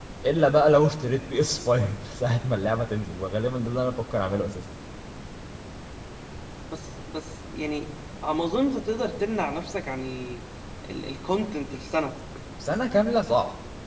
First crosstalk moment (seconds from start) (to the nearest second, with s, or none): none